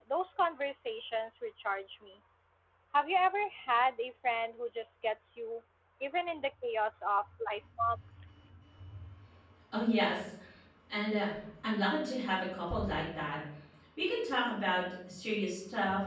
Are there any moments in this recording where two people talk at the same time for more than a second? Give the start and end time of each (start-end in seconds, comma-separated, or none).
none